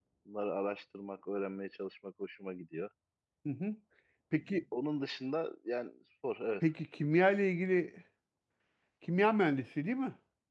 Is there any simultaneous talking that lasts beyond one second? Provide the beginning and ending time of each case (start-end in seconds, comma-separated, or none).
none